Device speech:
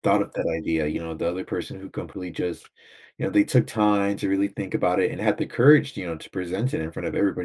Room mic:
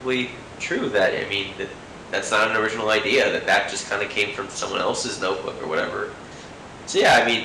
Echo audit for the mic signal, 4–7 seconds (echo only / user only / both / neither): user only